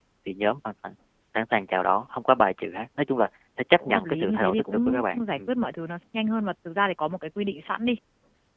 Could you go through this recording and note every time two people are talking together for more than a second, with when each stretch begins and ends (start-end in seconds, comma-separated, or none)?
3.8-5.5